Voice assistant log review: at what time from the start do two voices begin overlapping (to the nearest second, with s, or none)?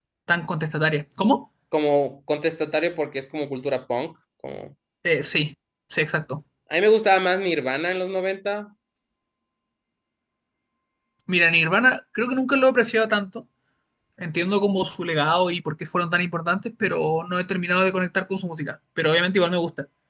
none